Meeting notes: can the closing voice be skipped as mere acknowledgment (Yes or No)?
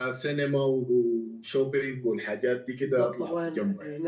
No